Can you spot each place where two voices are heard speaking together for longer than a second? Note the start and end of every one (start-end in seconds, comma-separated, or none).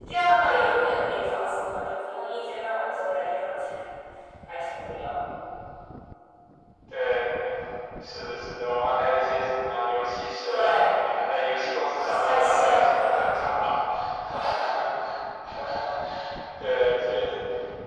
11.9-13.2